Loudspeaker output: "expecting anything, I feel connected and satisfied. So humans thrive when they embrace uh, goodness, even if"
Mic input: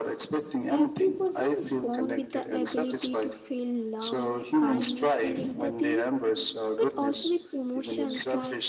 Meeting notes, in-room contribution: present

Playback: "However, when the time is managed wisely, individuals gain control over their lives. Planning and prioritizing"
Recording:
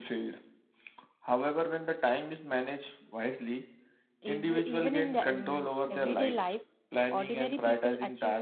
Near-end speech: present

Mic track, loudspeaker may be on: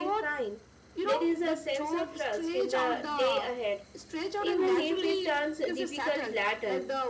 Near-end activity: present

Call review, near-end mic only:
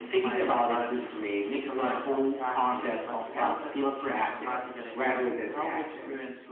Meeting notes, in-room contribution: none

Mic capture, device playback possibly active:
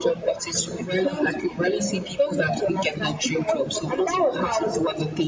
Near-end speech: none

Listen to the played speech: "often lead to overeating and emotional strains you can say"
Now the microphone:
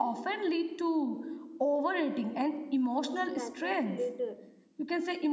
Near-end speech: present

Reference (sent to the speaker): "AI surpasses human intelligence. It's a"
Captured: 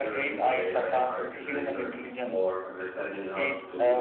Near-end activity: present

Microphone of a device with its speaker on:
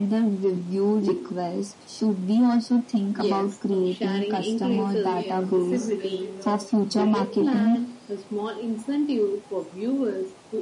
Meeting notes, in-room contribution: present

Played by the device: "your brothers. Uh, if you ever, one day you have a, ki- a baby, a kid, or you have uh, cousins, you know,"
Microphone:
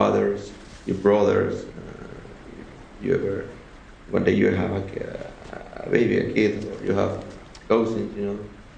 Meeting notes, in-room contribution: none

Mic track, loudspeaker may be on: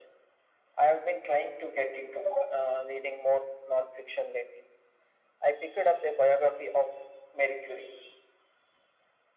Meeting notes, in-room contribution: none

